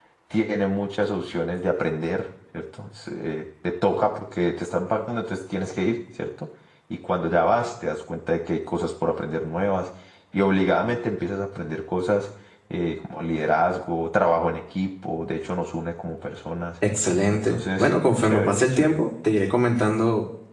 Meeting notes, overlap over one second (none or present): present